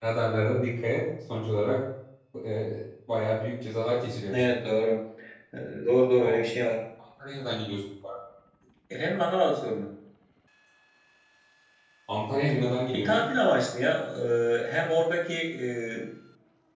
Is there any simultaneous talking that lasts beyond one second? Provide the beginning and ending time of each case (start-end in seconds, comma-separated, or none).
none